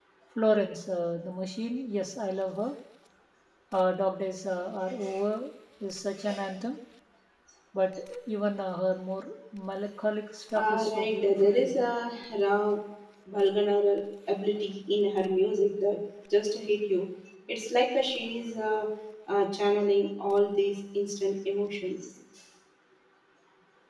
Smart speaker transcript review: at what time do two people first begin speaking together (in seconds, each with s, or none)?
10.6 s